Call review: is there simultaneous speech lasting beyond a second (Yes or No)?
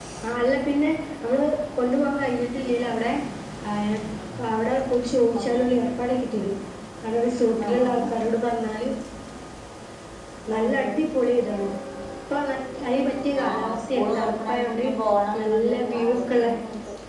Yes